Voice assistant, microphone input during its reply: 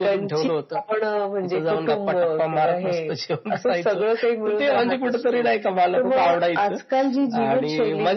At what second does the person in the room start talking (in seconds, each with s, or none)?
none